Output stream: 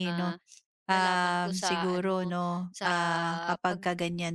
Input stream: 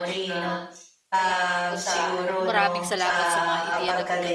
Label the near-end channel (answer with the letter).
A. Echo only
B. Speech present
B